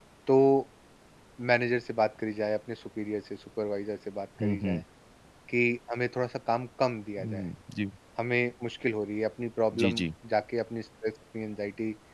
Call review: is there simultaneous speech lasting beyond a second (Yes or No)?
No